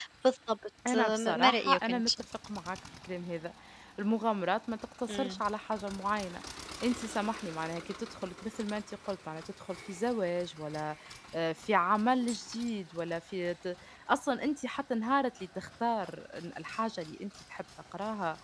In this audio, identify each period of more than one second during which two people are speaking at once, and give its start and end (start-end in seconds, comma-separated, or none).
0.9-2.1